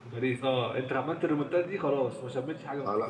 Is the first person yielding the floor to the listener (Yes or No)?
Yes